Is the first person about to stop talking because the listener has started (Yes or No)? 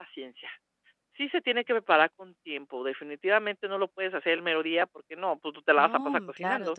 Yes